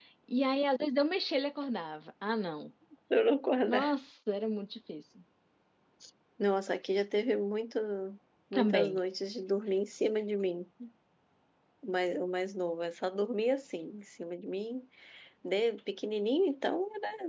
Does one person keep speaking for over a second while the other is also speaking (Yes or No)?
No